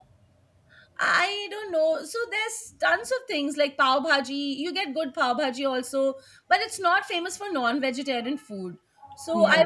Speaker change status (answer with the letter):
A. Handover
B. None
B